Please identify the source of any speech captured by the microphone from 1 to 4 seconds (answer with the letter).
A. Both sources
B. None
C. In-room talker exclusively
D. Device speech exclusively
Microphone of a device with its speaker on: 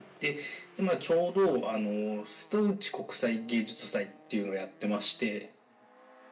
D